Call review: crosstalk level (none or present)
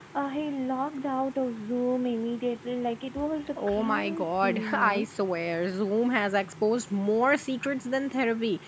present